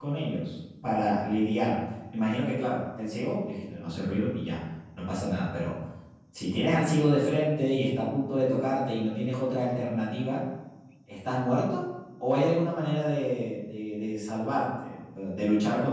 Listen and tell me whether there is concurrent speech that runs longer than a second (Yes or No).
No